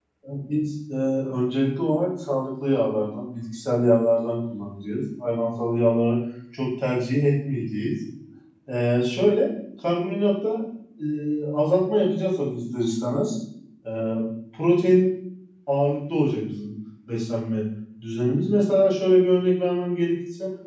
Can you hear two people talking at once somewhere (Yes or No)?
No